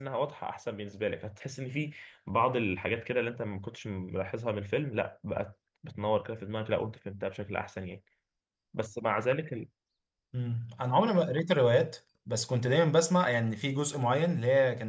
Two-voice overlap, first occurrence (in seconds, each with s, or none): none